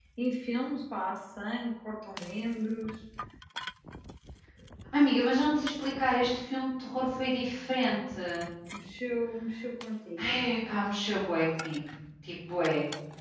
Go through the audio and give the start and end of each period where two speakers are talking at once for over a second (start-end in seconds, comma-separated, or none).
none